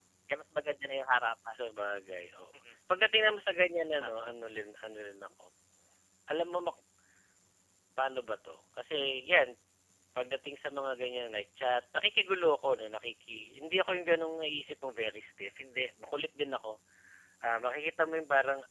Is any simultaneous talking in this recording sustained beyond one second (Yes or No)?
No